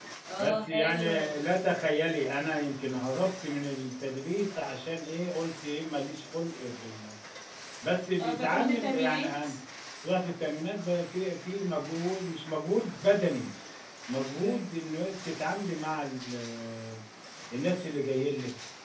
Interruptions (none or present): present